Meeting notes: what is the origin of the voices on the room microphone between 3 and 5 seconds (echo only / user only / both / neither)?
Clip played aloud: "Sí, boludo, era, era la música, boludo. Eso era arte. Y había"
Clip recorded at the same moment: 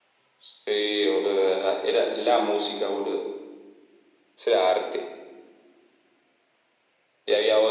echo only